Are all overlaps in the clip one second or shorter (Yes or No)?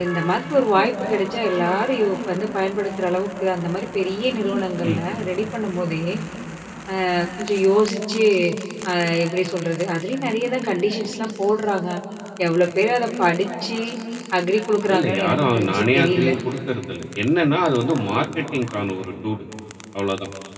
No